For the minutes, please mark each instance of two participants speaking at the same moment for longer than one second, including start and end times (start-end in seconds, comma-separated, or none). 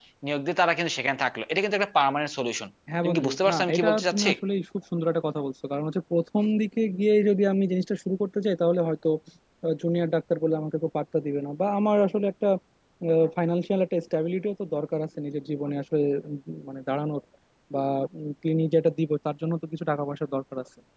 3.0-4.3